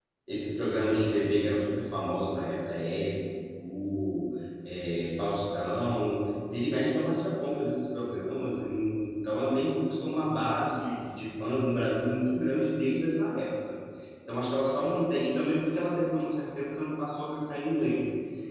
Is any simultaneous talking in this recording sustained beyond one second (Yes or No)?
No